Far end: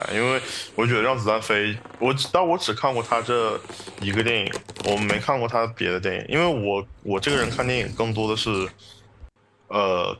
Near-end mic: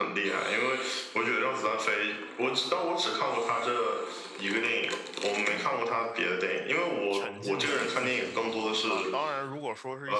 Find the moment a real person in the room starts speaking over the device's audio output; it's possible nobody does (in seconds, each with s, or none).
7.1 s